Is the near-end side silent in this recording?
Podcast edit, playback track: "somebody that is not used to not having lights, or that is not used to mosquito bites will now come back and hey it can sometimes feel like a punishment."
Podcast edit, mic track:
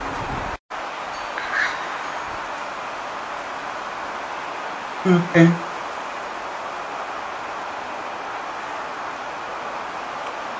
No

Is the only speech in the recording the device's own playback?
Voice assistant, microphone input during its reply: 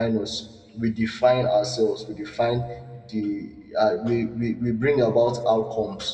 No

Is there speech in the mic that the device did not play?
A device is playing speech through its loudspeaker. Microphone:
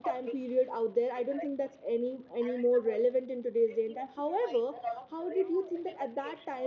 Yes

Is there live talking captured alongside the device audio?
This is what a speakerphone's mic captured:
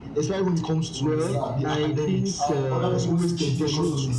Yes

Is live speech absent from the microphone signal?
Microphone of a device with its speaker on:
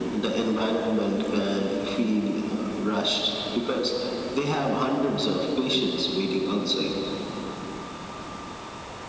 Yes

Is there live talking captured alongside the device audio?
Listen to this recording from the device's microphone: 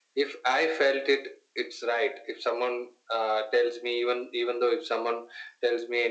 No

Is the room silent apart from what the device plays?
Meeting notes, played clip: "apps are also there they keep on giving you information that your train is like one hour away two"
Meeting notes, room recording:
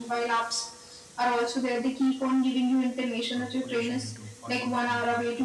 No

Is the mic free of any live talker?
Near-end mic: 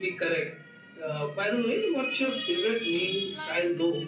No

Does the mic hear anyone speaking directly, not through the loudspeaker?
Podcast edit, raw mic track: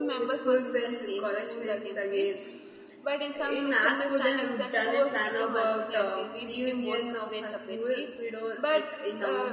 Yes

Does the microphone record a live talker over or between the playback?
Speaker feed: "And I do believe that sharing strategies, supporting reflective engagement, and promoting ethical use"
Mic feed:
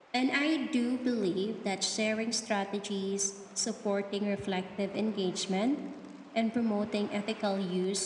No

